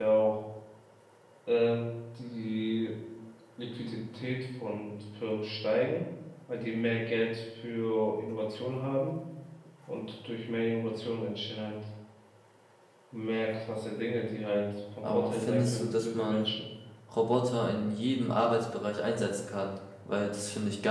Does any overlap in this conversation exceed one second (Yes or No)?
Yes